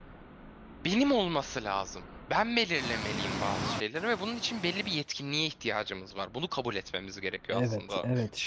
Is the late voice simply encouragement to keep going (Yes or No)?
No